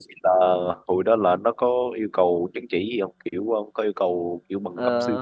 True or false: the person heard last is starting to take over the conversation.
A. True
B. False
A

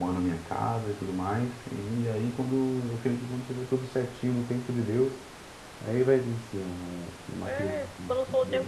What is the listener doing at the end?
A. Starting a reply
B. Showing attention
A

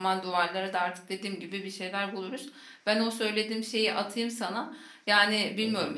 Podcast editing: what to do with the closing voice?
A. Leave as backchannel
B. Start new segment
A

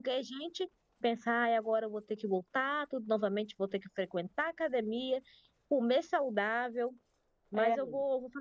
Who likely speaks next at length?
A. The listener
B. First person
B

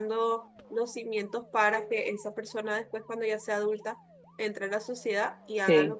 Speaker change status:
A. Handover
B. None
B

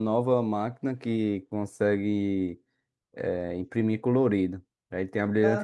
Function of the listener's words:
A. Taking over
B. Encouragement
B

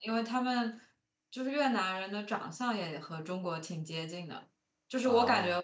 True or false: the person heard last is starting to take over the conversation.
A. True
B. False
B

